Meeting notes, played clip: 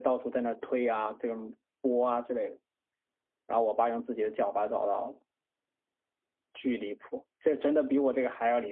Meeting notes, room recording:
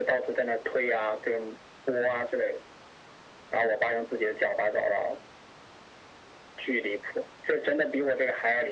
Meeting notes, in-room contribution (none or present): none